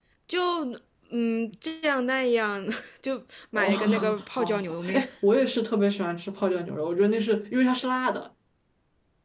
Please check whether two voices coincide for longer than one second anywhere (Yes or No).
Yes